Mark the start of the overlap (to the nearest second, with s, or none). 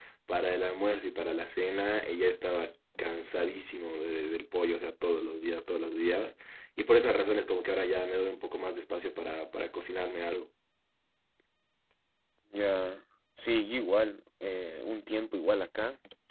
none